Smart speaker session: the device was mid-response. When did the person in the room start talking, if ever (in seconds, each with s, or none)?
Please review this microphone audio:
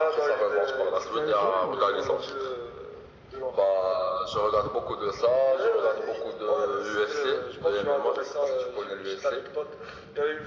1.1 s